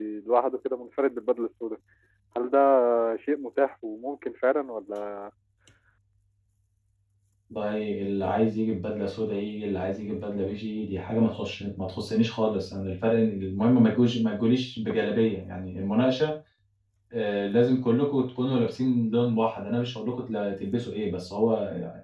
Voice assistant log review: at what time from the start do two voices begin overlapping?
none

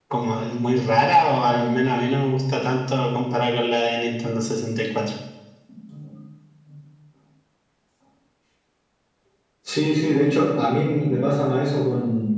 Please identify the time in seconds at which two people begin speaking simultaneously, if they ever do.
none

